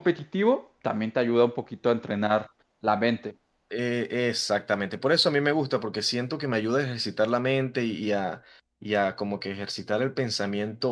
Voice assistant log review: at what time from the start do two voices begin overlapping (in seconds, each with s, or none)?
none